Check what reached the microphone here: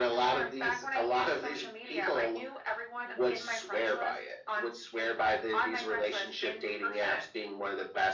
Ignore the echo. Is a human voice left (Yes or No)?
No